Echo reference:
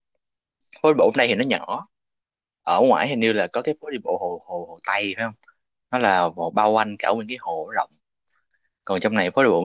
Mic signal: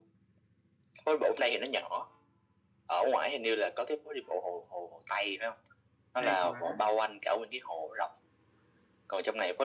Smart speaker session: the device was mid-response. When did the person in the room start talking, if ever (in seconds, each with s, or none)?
6.2 s